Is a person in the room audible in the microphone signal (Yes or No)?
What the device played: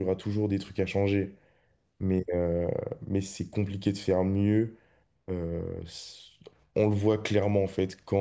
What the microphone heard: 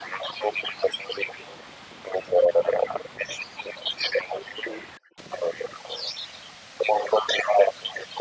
No